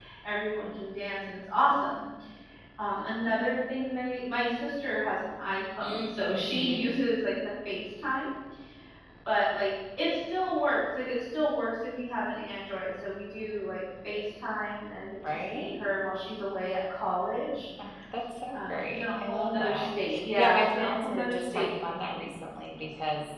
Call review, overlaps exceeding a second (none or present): present